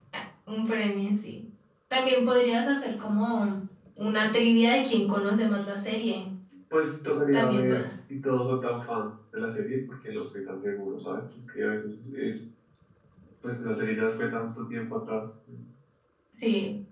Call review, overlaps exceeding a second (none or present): none